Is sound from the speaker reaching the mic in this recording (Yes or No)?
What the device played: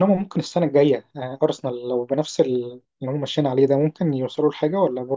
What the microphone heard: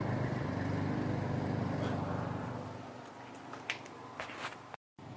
No